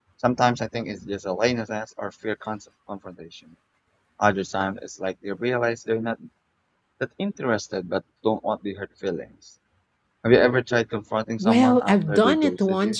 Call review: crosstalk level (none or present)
present